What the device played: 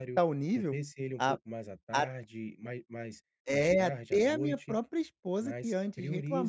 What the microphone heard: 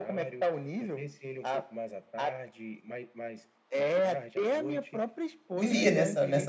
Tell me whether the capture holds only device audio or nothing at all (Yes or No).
No